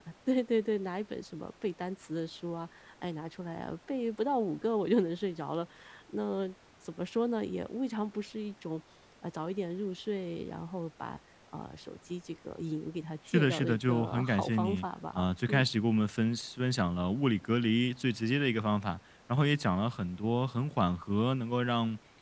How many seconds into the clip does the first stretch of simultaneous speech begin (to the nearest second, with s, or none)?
13 s